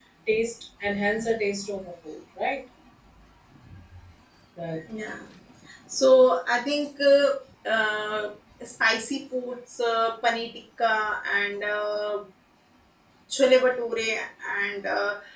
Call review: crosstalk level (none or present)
none